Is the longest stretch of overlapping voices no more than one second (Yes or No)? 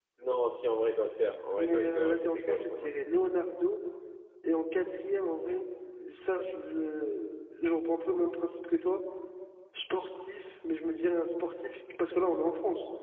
No